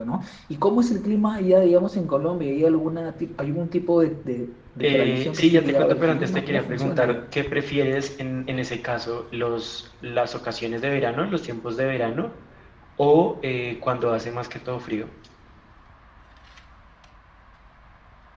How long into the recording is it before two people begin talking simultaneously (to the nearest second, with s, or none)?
5 s